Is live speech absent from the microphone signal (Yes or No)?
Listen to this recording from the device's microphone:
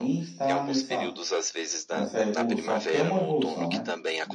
No